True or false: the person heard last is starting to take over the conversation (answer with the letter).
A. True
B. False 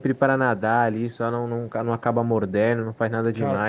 B